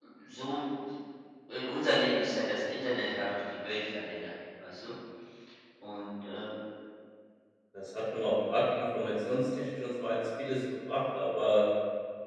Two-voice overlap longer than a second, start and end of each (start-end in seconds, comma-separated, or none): none